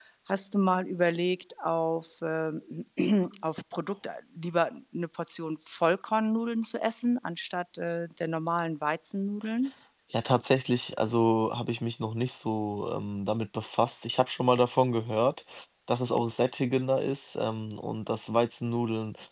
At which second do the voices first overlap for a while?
none

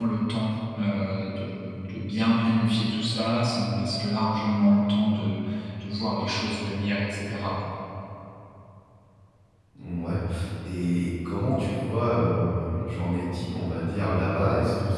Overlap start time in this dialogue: none

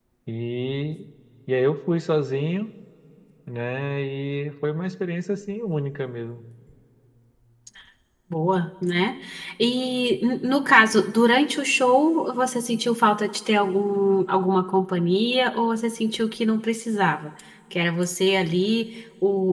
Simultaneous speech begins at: none

